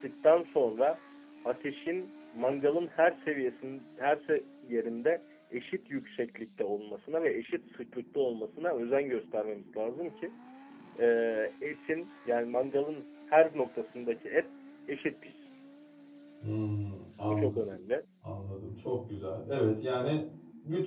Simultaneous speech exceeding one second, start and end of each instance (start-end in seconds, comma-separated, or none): none